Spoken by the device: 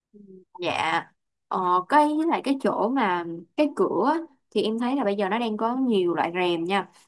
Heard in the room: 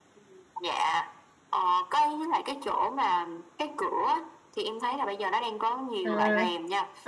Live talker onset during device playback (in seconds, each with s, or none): 6.0 s